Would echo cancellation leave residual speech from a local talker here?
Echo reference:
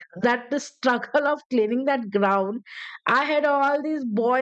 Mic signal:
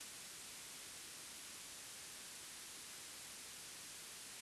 No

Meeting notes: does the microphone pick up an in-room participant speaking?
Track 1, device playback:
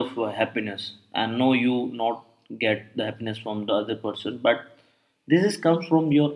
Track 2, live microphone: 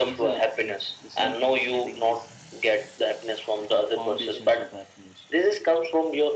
Yes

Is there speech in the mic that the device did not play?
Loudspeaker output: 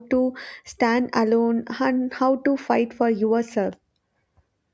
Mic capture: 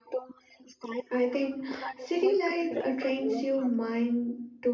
Yes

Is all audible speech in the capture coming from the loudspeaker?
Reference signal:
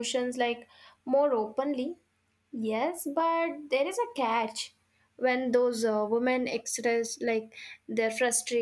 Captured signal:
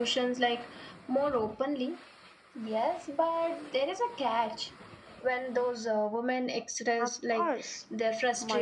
No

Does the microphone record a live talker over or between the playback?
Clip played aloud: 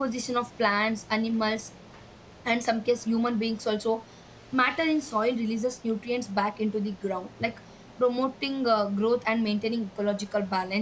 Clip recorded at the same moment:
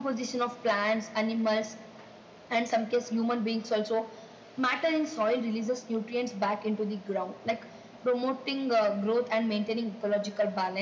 No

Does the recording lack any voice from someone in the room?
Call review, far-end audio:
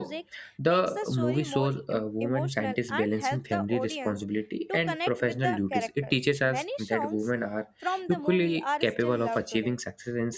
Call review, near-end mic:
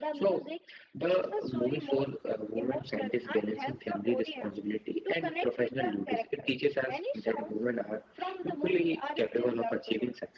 Yes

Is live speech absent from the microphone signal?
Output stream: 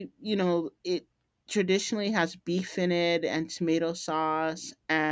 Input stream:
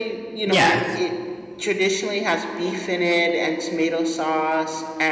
No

